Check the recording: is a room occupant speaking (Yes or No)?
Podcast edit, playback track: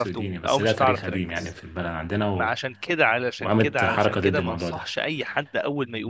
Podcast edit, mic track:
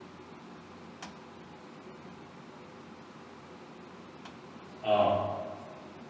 Yes